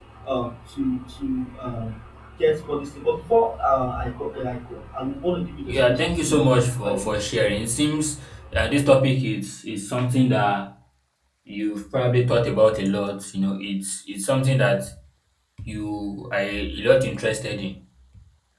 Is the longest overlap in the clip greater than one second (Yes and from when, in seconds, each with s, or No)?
Yes, from 5.7 s